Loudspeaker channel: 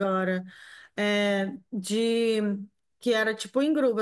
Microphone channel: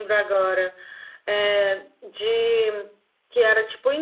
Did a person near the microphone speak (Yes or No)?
No